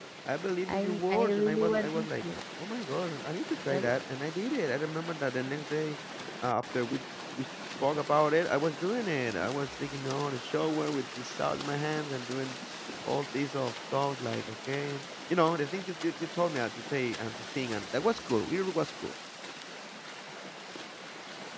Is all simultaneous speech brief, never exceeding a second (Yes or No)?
No